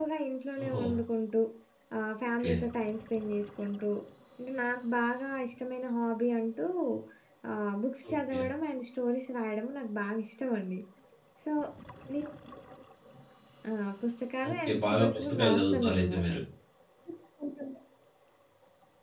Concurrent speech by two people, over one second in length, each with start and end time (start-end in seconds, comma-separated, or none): 14.5-16.2